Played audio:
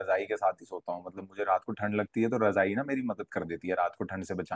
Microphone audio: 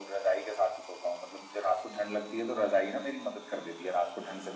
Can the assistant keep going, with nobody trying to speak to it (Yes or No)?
Yes